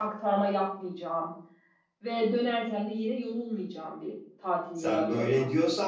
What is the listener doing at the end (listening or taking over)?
taking over